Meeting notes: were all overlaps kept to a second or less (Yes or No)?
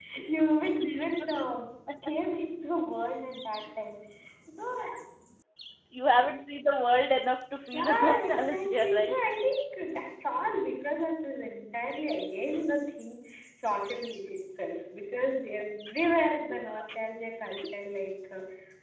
No